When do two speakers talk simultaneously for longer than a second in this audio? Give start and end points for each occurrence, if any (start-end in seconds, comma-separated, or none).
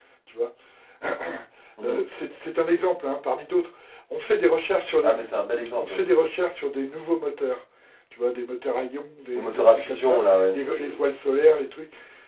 9.4-10.6